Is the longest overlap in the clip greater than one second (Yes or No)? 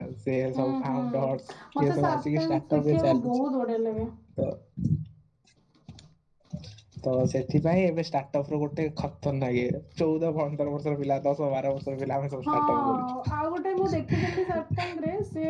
Yes